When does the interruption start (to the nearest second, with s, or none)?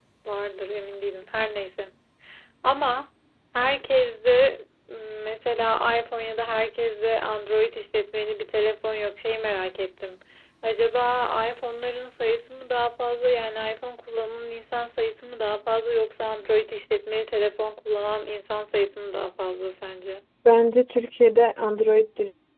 none